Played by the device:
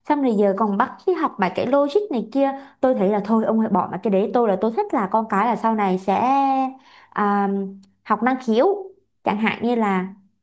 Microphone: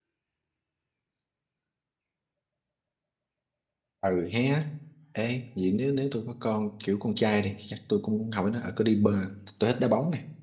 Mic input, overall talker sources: user only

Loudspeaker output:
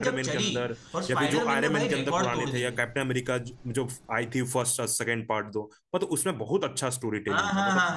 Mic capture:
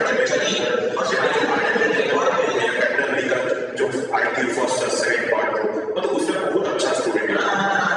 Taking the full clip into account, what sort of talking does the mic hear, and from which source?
echo only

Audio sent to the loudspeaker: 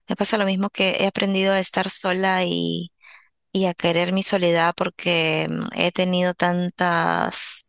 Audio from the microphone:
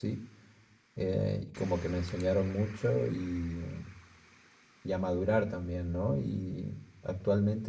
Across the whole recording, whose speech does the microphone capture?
user only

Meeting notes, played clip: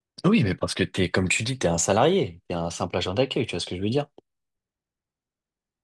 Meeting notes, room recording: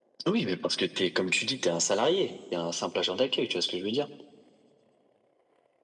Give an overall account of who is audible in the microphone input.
echo only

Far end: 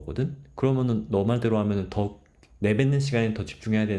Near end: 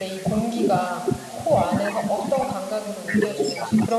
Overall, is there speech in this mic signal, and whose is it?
both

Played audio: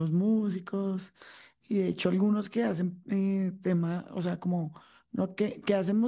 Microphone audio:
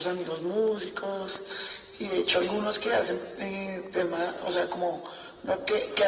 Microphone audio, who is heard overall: echo only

